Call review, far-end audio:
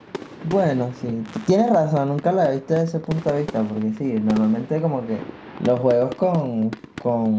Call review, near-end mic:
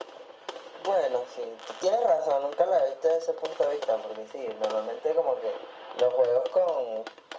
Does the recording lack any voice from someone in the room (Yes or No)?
Yes